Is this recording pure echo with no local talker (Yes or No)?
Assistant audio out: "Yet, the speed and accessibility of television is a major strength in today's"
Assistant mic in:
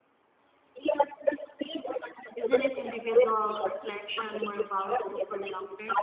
No